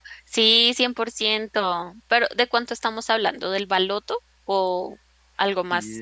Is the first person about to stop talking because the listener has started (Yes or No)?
Yes